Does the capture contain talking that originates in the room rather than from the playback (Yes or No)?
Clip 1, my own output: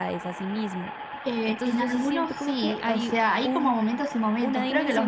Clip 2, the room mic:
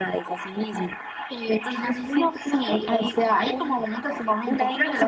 No